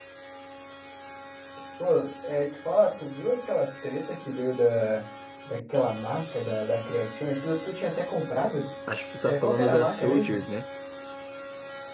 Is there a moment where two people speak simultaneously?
Yes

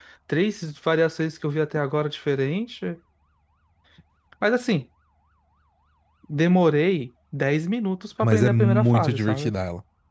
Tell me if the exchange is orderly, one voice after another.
No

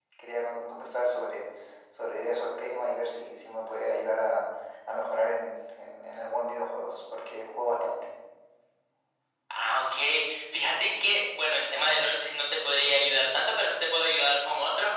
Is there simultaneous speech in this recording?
No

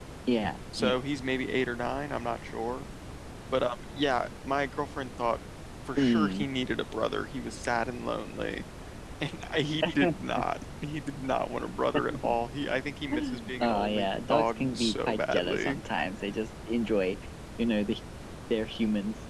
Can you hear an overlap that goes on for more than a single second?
Yes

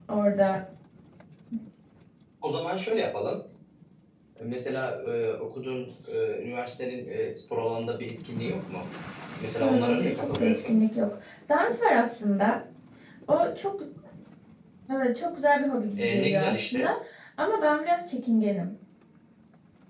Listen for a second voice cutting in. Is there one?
Yes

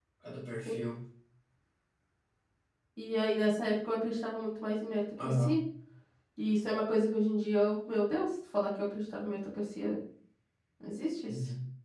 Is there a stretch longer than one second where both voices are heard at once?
No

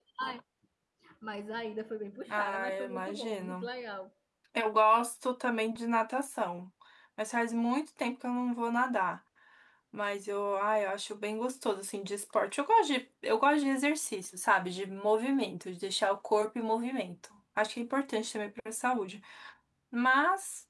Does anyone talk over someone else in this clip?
Yes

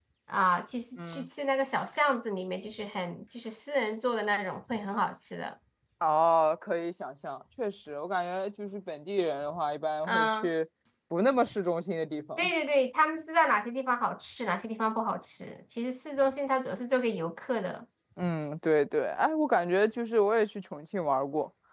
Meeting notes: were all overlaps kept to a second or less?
Yes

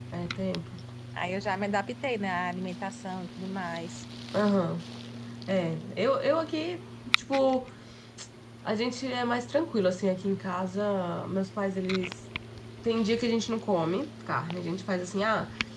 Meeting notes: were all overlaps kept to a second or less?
Yes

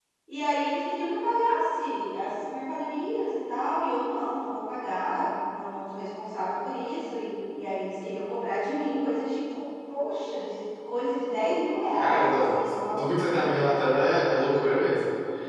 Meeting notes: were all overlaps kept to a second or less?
No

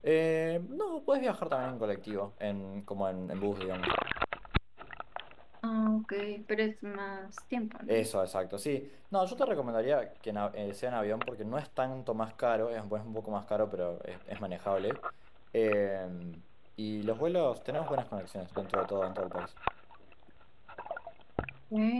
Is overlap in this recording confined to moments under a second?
Yes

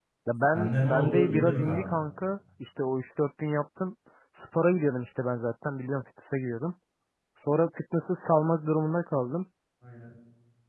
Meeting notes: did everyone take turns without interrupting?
No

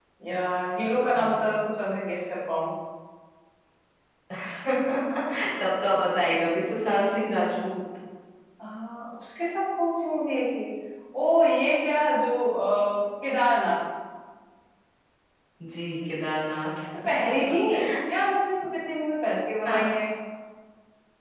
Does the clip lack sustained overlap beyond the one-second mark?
Yes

